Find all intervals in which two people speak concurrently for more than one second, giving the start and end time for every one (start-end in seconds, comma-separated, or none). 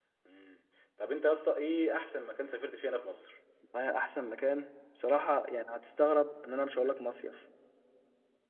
none